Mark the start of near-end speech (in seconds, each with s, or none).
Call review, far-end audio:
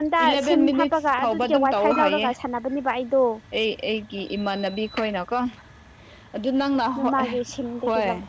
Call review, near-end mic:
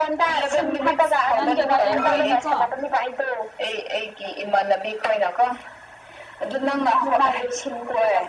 1.3 s